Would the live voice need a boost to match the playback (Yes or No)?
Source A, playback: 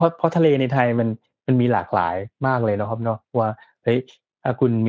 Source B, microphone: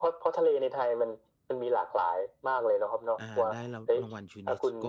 Yes